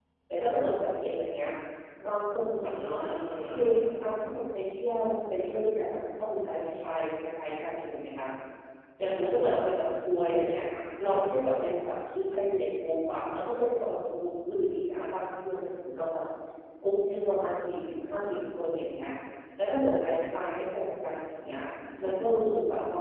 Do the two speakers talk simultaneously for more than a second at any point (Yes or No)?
No